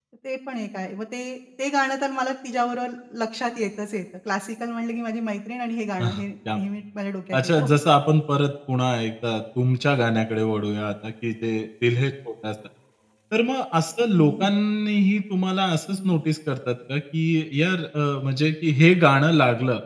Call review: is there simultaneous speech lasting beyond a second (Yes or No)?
No